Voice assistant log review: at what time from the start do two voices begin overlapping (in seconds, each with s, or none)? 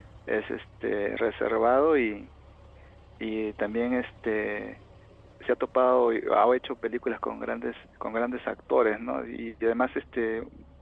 none